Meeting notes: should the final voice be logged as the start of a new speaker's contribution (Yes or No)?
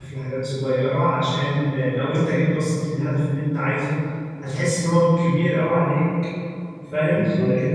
No